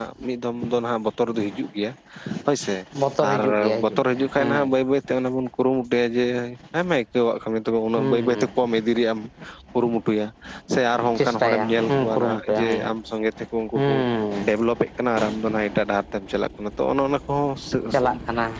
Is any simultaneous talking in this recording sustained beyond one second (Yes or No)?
Yes